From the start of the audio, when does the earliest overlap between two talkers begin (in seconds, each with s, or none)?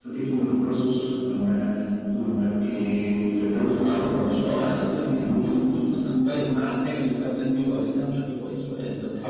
3.7 s